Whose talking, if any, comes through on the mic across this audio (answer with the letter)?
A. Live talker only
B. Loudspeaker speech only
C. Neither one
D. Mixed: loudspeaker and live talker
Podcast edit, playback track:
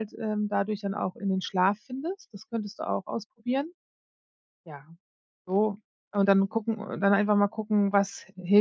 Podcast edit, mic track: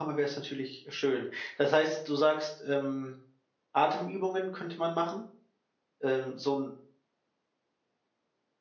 A